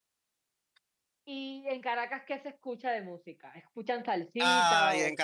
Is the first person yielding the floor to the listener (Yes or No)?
Yes